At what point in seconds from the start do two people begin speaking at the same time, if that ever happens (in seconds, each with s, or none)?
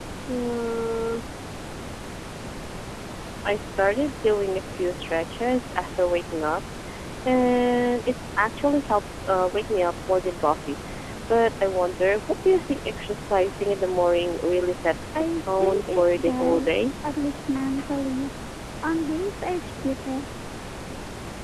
15.2 s